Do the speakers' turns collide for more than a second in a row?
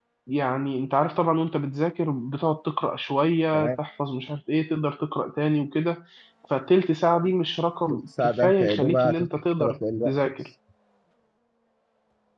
Yes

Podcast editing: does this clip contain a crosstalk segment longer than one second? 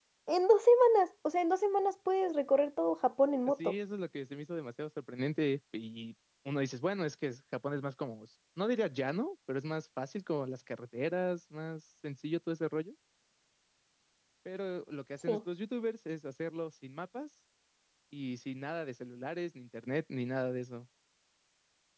No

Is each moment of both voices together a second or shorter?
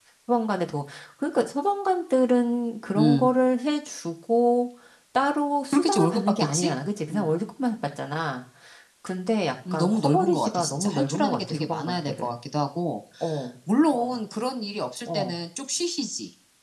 No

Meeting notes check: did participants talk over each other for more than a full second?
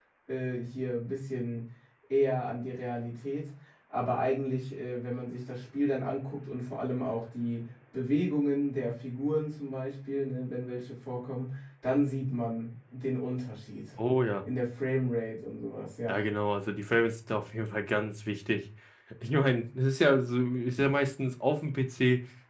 No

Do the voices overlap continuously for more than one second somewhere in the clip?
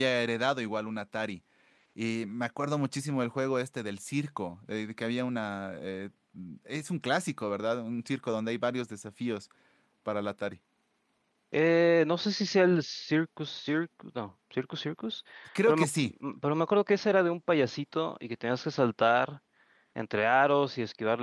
No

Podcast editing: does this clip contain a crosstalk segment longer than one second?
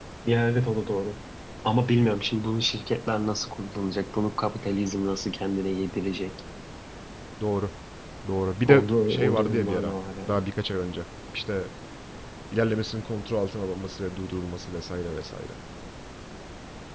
Yes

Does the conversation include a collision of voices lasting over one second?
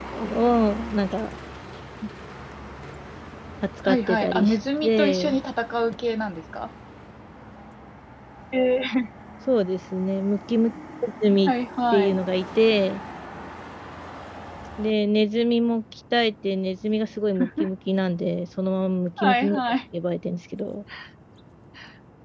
Yes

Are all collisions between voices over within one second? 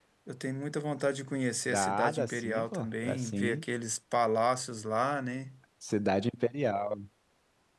No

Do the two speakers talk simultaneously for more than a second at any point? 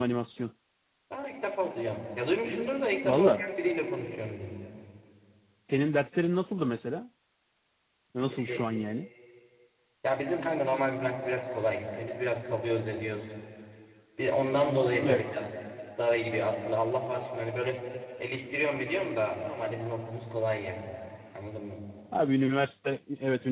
No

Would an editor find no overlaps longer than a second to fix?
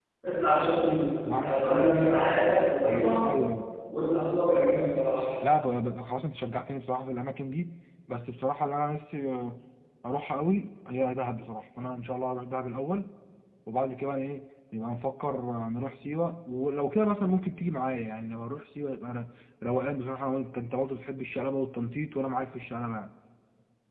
Yes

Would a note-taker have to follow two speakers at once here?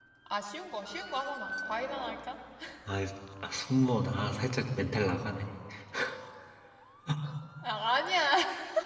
No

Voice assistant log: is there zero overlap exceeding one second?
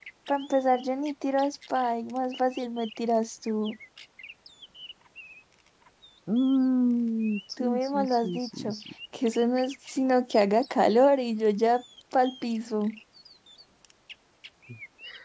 No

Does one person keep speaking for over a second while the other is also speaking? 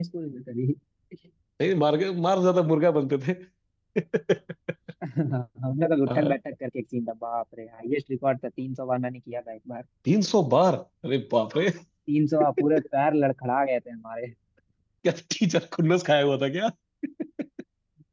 No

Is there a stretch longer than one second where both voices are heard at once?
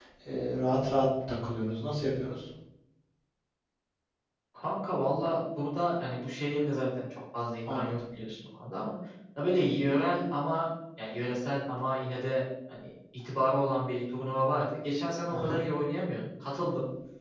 No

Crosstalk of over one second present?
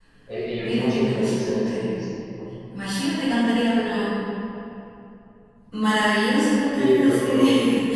Yes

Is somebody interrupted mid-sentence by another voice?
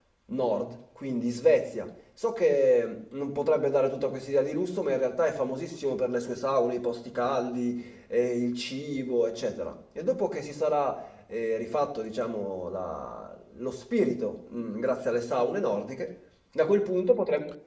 No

